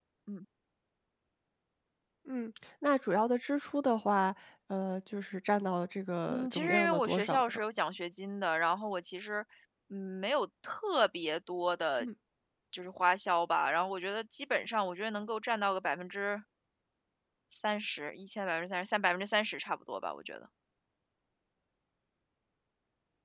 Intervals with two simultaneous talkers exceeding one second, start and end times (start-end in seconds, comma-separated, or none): 6.3-7.6